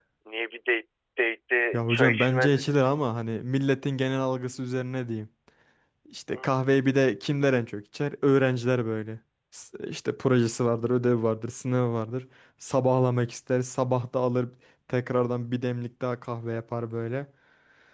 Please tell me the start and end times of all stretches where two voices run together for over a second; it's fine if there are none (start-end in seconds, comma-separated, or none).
1.7-3.1